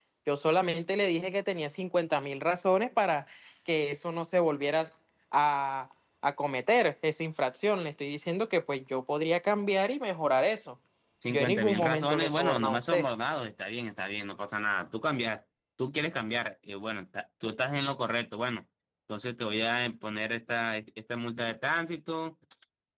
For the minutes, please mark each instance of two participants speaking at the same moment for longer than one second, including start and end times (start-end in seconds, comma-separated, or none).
11.3-13.0